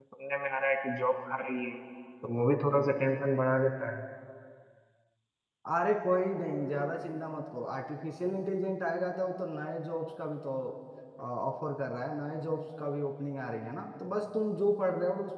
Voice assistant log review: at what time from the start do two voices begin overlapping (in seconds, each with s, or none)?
none